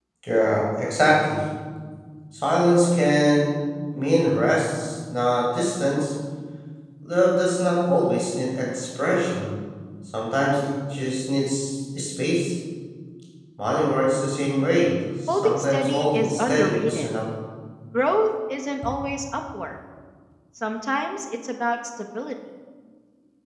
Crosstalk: present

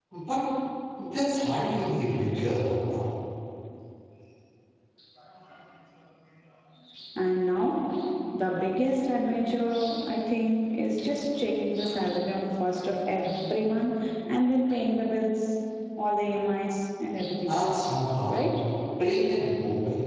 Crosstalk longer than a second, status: none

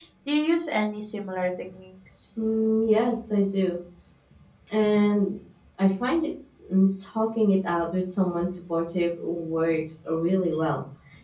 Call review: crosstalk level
none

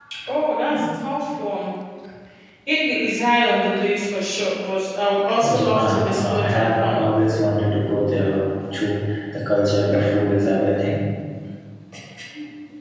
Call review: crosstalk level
present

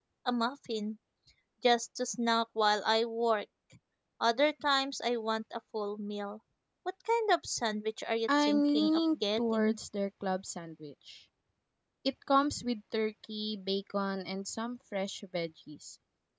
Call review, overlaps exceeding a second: present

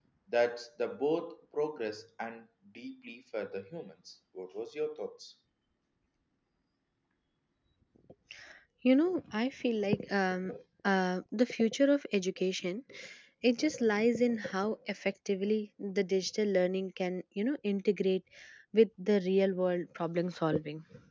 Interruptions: none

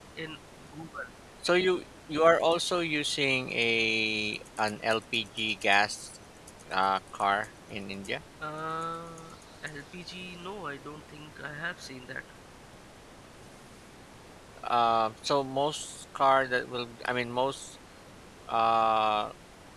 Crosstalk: none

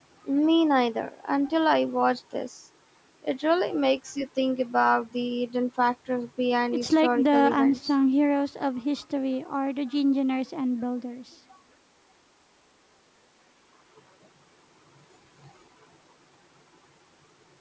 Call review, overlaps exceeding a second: present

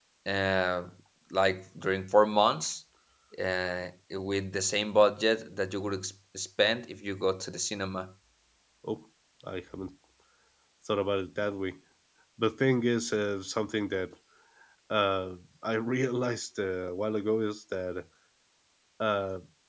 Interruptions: none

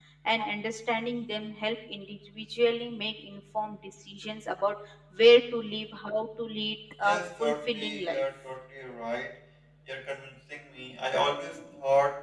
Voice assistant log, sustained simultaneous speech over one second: present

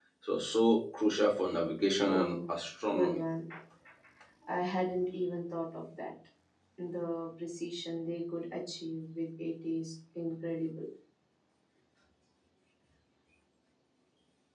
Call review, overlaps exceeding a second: none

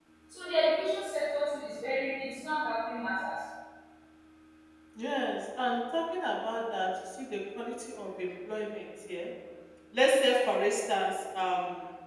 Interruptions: none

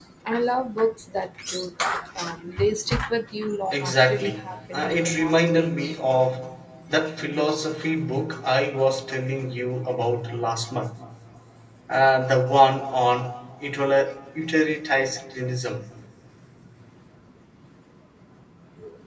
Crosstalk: present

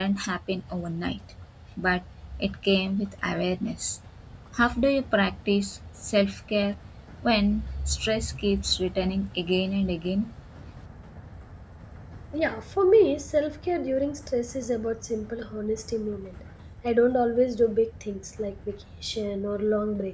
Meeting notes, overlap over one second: none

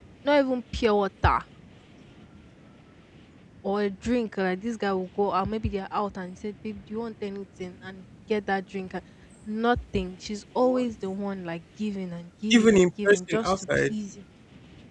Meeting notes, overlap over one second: present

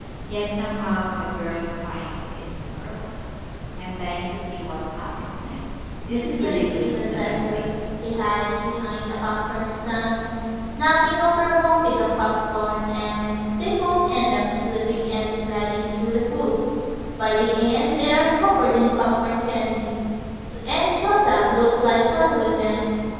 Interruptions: present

